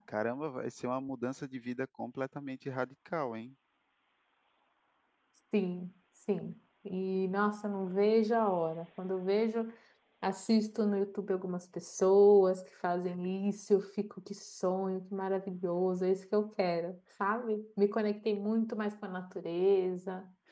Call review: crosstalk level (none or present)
none